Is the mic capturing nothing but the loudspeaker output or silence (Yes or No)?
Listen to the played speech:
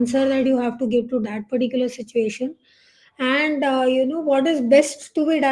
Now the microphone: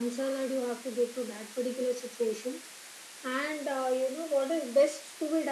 Yes